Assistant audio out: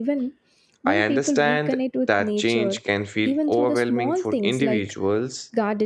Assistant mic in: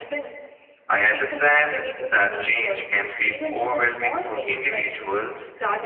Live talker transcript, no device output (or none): none